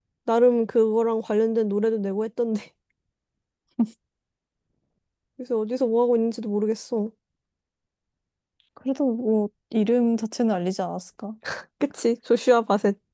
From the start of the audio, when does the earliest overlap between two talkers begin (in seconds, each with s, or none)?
none